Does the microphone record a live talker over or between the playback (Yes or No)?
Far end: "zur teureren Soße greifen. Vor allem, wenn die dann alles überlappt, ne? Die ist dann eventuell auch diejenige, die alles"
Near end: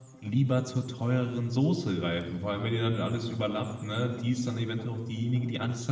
No